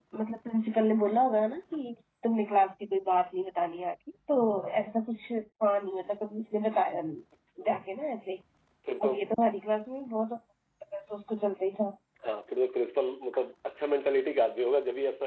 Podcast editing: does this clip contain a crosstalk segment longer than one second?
No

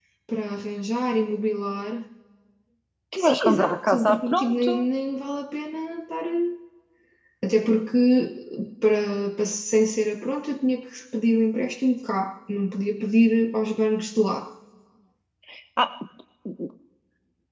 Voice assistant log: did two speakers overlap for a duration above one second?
Yes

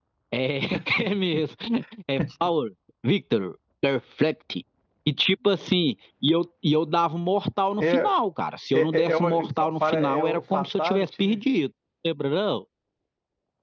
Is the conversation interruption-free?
No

